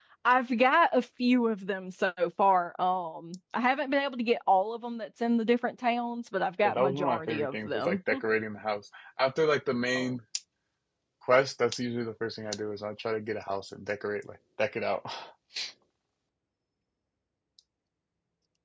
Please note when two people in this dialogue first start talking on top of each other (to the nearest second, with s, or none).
7 s